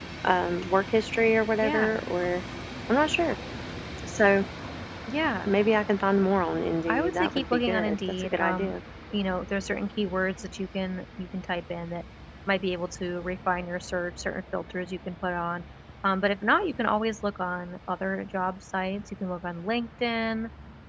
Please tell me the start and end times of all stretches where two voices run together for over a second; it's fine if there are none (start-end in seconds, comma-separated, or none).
6.9-8.8